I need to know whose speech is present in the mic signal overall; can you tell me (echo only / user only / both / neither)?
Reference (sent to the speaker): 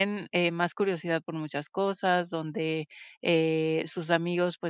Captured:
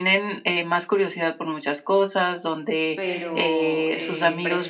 both